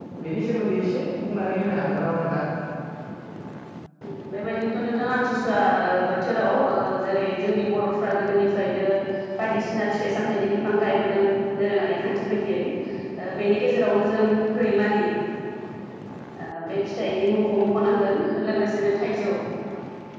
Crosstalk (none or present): none